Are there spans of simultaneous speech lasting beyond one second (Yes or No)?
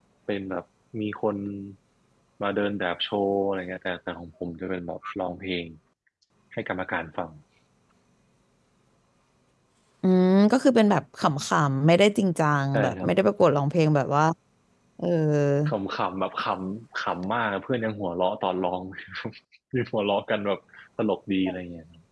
No